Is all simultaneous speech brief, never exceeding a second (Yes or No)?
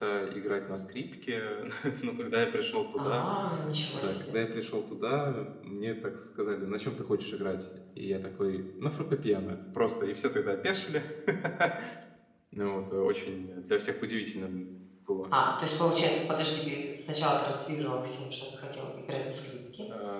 Yes